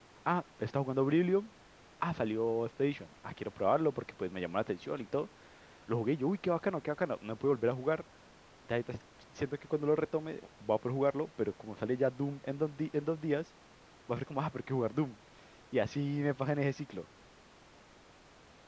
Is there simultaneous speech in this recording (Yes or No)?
No